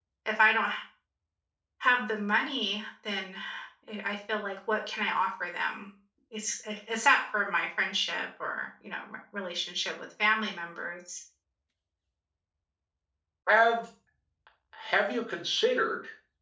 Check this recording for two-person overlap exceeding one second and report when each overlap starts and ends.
none

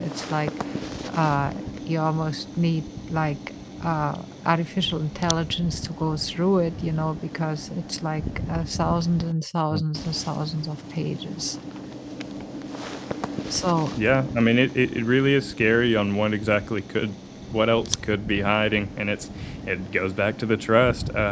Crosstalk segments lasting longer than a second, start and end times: none

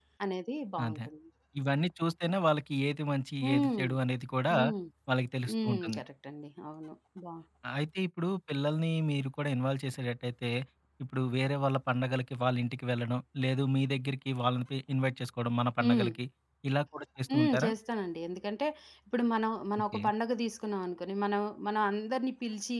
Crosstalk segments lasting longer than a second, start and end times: none

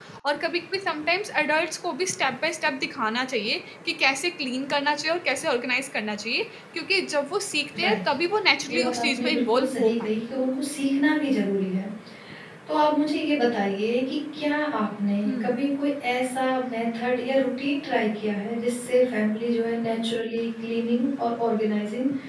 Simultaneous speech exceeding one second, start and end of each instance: 8.7-10.1

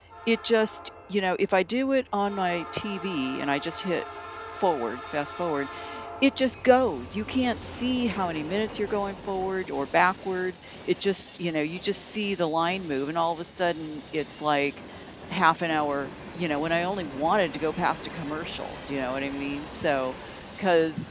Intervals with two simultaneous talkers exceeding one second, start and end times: none

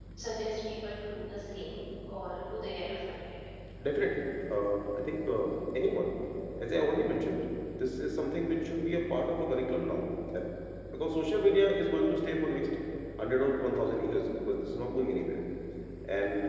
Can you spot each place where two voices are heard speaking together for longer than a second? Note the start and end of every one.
none

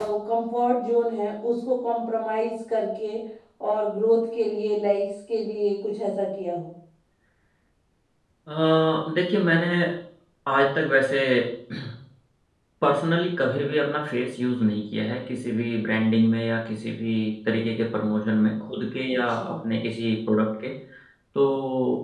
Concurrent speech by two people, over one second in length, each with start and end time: none

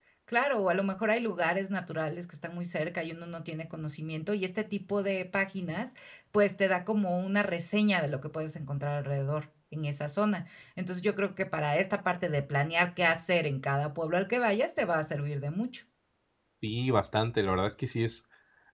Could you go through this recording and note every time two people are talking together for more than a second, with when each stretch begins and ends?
none

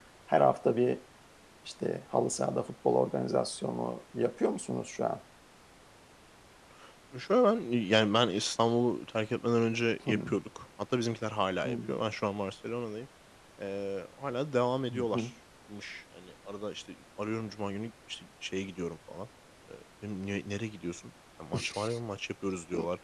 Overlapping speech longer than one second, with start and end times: none

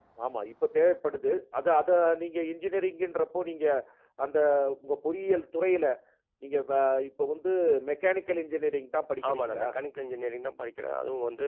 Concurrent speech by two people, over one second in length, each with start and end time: none

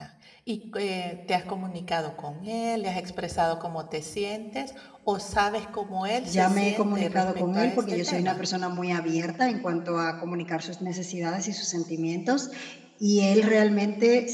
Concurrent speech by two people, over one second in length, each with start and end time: 6.2-8.4

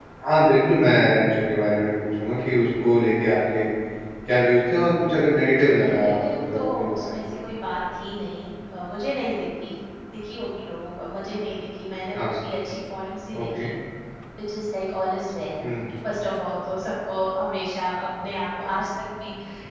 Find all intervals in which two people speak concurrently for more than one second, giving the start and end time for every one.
5.8-7.4

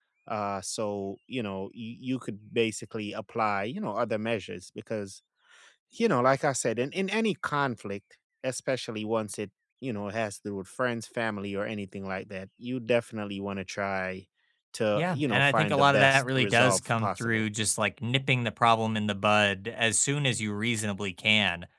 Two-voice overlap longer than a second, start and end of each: 15.0-17.4

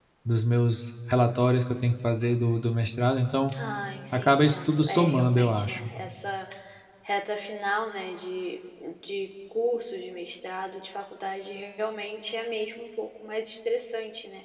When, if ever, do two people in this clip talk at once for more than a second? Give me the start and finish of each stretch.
4.1-5.9

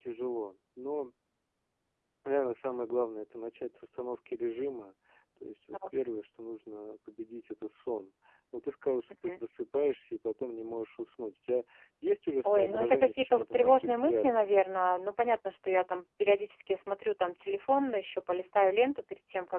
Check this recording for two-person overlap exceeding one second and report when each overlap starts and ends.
12.4-14.6

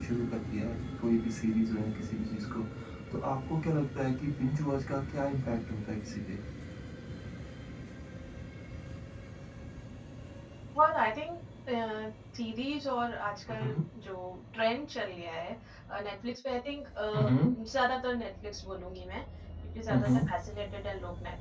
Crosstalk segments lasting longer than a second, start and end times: none

